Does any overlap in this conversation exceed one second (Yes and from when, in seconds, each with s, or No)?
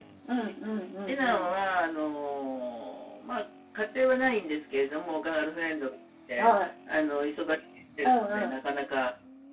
No